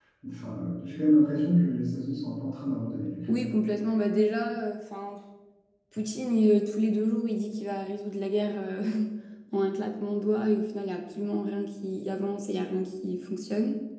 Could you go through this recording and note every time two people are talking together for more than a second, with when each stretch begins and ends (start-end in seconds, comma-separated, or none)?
none